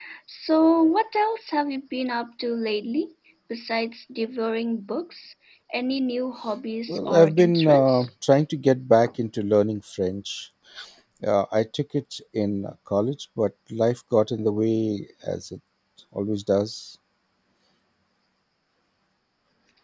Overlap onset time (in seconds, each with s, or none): 6.9 s